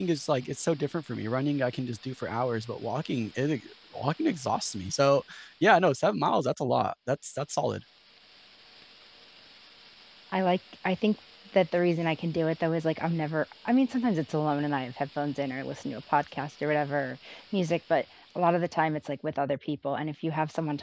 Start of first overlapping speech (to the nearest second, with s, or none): none